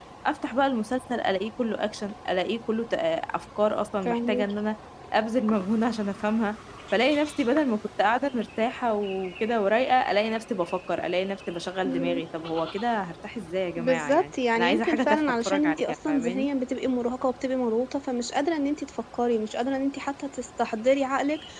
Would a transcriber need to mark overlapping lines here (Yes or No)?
Yes